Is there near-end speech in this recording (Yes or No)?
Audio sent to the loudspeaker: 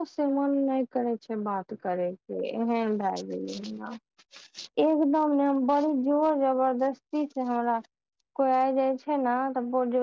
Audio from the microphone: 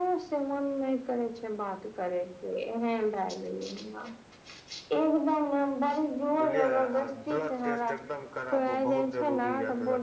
Yes